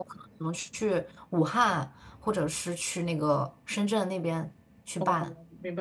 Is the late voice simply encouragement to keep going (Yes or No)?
No